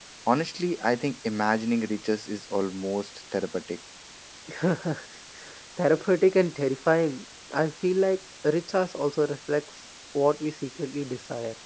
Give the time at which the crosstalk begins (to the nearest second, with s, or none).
none